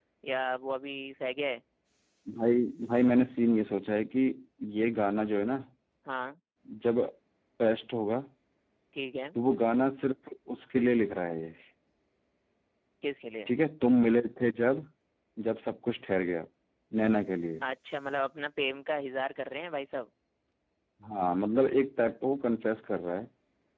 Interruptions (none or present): none